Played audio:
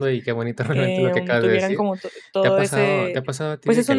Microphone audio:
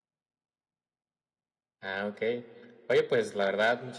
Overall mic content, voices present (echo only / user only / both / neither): user only